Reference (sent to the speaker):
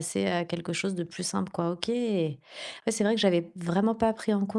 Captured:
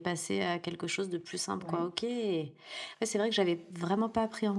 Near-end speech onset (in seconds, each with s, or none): 1.5 s